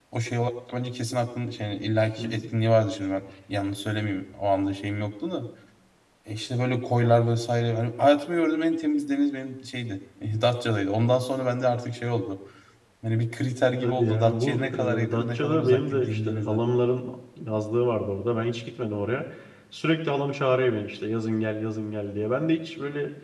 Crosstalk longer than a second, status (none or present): present